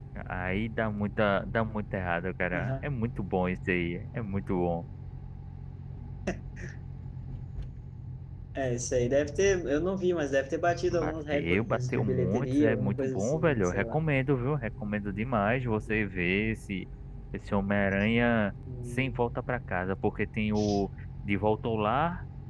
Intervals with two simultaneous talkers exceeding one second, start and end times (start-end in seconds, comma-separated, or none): 10.9-14.0